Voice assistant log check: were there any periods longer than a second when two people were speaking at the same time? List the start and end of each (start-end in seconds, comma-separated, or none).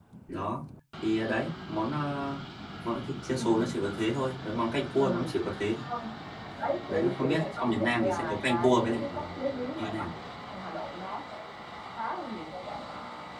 6.9-9.0